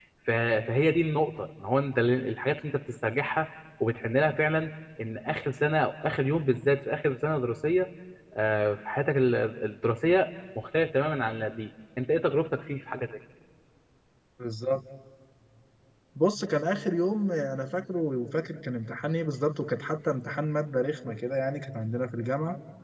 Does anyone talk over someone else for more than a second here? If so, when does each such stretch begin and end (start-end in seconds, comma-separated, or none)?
none